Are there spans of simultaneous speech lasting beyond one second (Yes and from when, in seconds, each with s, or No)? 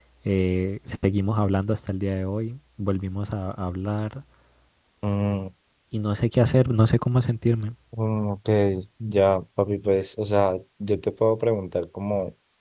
No